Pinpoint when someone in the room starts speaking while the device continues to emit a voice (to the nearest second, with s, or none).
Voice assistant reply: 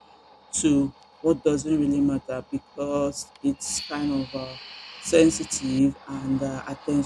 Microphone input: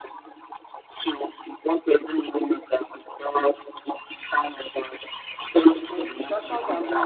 6 s